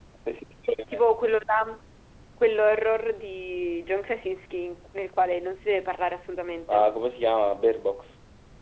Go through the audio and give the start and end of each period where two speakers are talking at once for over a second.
none

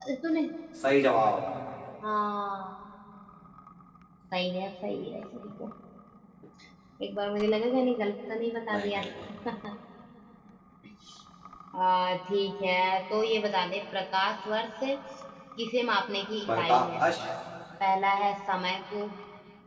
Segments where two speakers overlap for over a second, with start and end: none

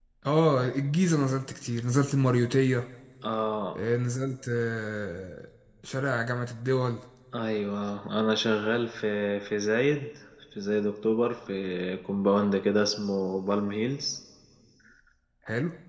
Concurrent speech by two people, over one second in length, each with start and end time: none

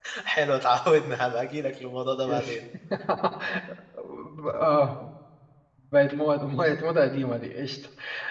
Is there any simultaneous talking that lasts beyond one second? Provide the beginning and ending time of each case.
none

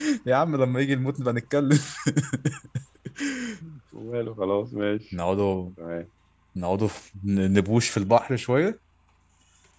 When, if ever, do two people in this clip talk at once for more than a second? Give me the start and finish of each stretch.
none

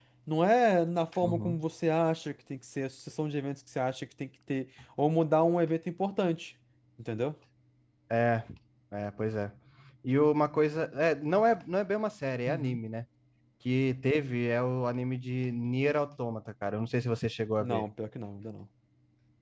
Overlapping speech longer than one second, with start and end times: none

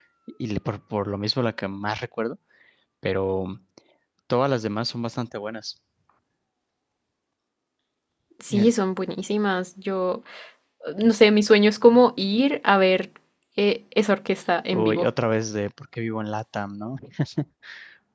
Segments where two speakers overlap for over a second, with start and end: none

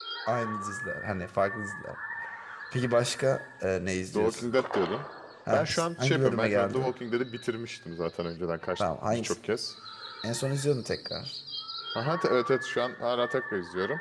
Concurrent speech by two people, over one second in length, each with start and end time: 5.5-6.9

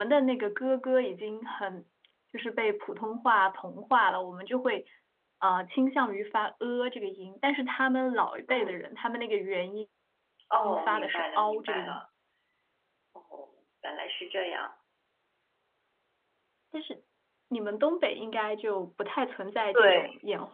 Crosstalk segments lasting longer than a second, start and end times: 10.6-12.0

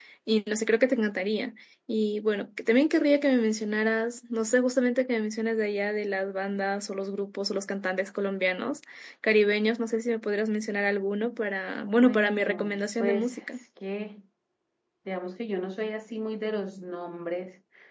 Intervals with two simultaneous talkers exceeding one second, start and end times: 12.0-13.4

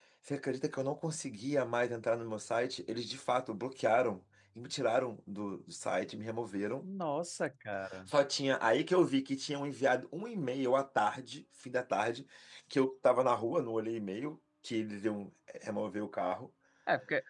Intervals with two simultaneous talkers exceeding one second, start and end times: none

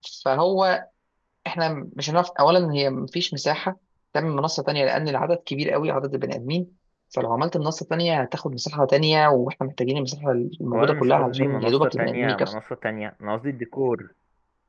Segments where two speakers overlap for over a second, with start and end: 10.7-12.5

